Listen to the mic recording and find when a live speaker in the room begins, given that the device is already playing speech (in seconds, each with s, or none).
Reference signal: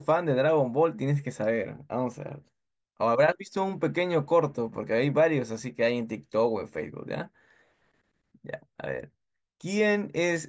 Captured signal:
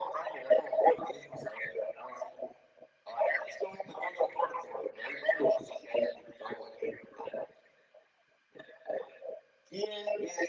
none